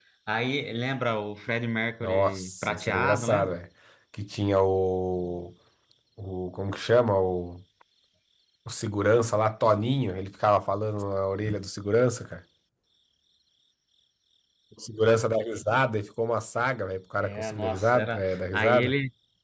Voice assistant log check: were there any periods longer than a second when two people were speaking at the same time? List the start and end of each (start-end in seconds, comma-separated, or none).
2.0-3.6, 17.2-18.9